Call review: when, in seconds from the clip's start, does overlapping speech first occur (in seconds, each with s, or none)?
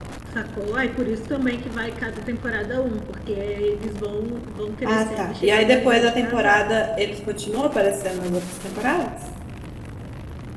4.8 s